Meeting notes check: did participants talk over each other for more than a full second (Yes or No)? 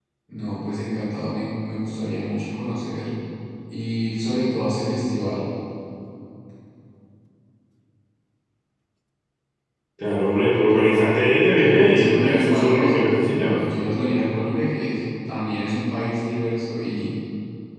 Yes